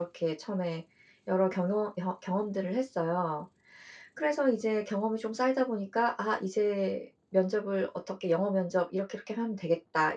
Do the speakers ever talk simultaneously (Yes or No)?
No